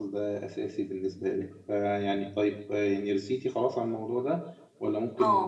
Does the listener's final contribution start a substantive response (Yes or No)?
Yes